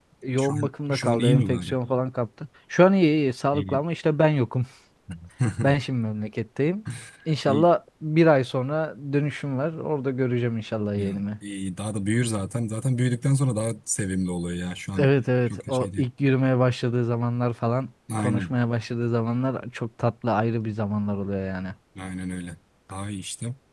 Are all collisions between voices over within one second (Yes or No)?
No